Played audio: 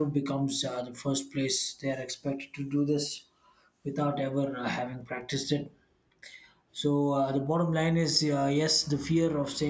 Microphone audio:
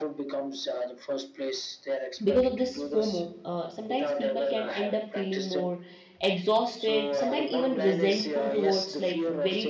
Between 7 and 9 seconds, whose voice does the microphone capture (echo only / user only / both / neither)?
both